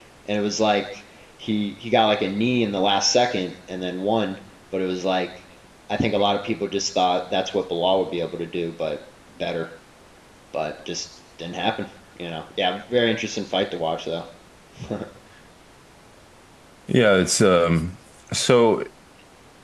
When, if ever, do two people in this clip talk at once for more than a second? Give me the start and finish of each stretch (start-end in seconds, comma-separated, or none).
none